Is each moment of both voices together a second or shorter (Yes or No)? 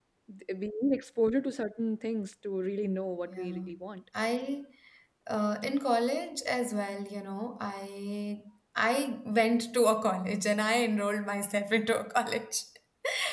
Yes